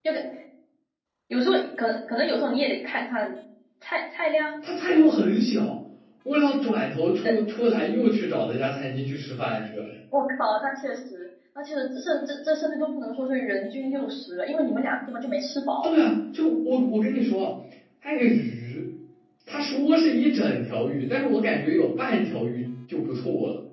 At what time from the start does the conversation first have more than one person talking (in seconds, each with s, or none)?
none